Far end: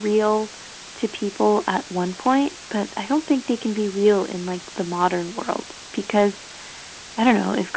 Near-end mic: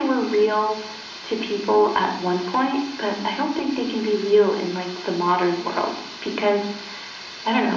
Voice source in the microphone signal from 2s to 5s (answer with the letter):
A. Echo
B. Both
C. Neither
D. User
A